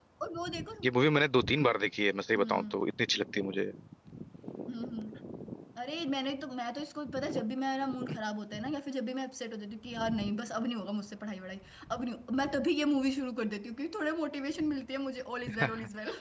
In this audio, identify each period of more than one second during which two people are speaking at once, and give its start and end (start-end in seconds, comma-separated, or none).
none